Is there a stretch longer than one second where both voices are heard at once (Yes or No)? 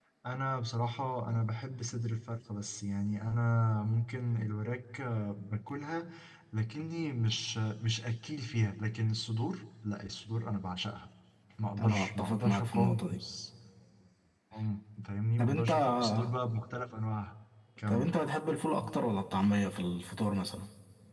Yes